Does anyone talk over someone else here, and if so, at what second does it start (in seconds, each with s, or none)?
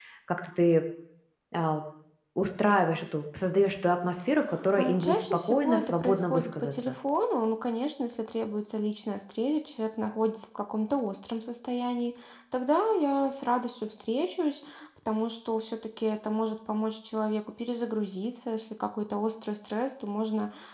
4.8 s